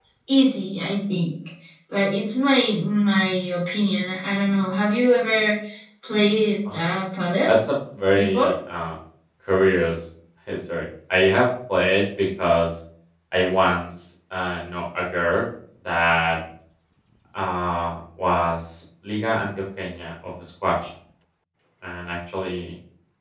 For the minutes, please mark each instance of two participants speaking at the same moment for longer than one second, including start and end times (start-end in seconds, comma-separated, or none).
none